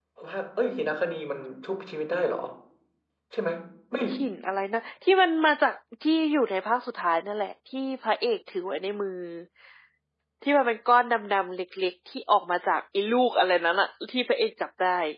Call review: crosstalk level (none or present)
none